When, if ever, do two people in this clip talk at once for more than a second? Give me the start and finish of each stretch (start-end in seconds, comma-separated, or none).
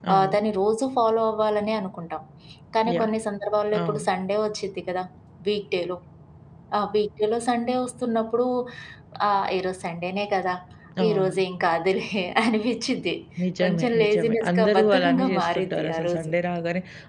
13.6-16.3